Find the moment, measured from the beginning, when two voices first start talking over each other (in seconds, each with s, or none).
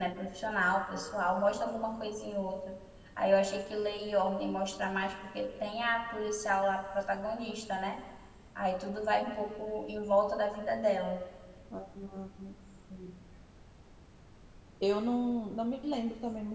none